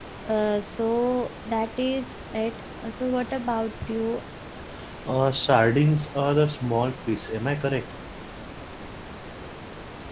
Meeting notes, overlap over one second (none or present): none